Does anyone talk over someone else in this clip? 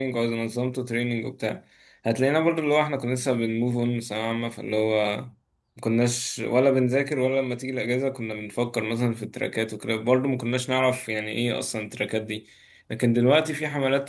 No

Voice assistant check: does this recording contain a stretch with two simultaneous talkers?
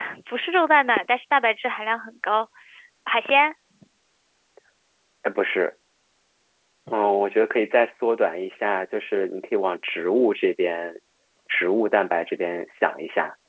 No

